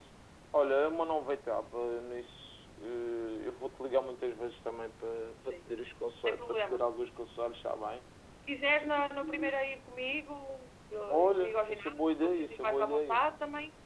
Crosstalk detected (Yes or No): Yes